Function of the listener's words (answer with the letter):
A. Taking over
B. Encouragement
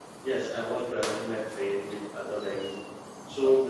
A